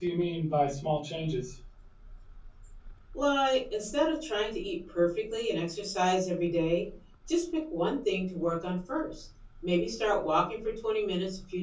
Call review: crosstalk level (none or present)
none